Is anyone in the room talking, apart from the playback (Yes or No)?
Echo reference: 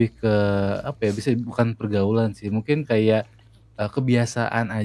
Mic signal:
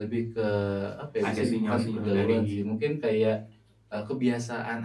Yes